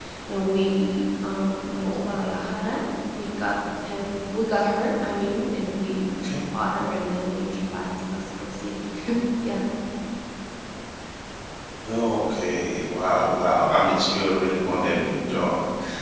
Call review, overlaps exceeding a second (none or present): none